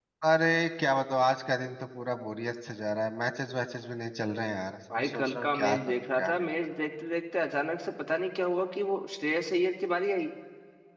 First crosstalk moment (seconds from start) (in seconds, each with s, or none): 4.9 s